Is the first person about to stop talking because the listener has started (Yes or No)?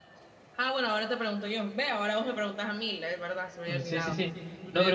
Yes